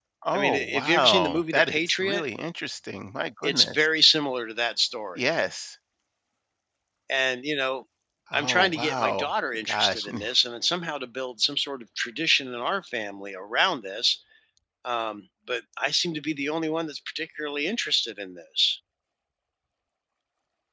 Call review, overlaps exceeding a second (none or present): present